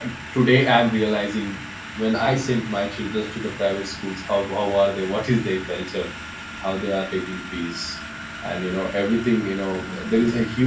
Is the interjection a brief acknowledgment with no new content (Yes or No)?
Yes